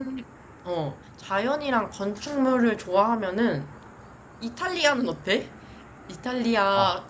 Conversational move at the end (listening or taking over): listening